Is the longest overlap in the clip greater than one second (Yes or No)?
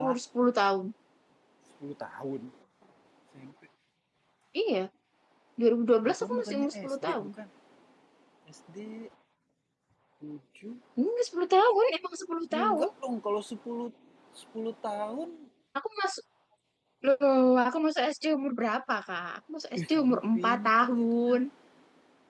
Yes